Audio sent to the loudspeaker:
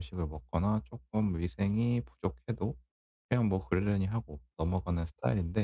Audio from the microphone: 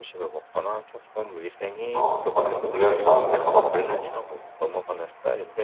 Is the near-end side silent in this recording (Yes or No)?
No